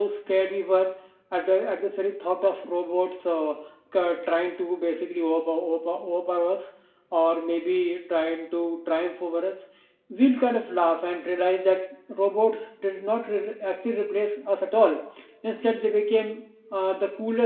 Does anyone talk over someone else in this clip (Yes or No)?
No